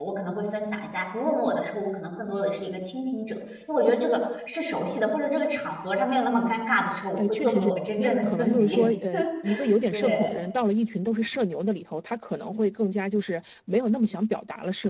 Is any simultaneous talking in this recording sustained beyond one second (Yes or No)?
Yes